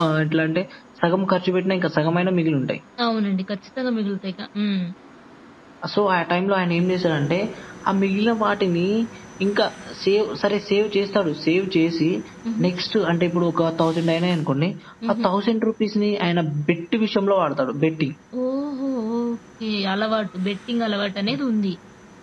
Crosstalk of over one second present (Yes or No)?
No